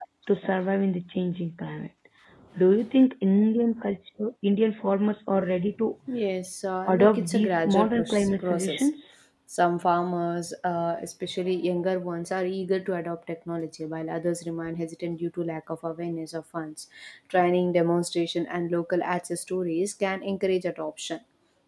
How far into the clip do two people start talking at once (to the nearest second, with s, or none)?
7 s